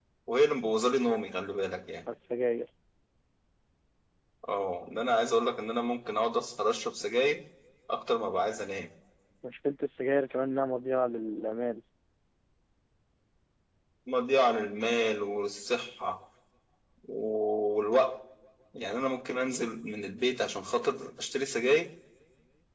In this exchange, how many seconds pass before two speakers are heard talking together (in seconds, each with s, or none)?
none